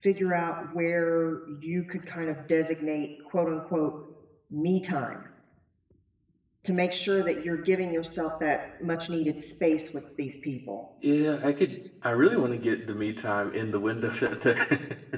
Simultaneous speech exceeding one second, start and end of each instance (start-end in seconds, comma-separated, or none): none